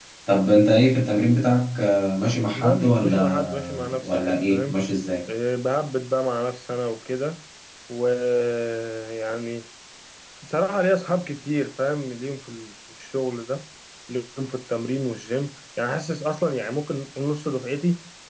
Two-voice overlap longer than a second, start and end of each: 2.6-4.8

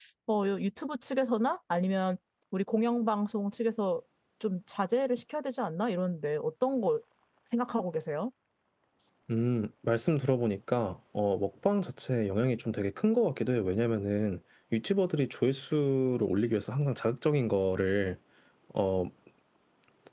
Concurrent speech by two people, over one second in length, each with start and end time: none

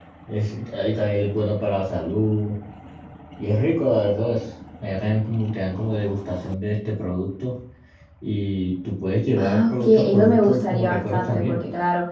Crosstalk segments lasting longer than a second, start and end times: 9.4-11.6

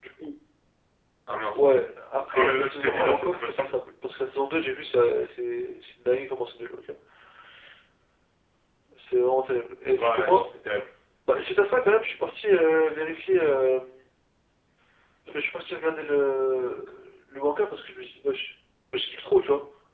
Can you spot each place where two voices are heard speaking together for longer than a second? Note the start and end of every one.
2.3-3.7

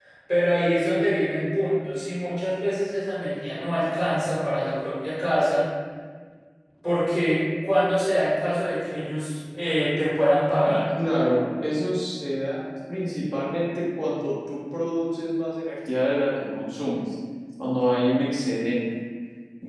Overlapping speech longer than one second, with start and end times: none

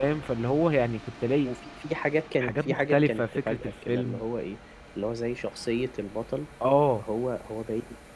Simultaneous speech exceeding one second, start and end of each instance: 2.4-4.2

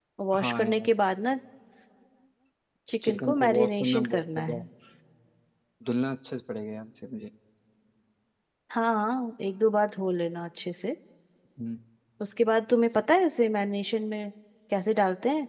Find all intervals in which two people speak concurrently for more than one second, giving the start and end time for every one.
3.0-4.6

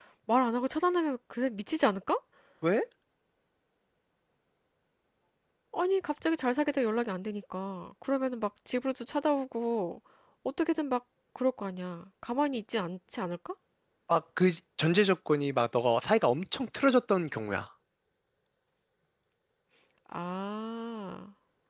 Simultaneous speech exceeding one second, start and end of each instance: none

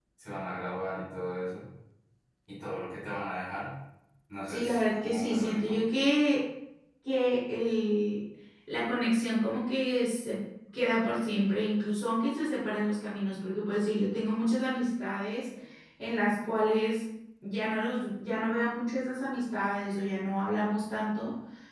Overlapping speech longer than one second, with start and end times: 4.5-5.8

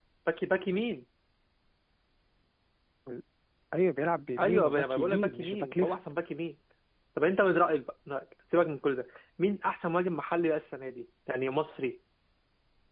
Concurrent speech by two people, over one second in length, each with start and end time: 4.4-6.0

